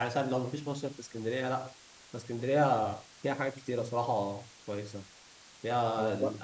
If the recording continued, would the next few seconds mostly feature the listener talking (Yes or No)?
No